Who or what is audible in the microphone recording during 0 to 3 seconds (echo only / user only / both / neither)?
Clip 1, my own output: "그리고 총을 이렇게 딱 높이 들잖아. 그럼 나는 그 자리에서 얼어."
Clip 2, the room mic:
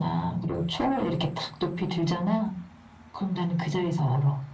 echo only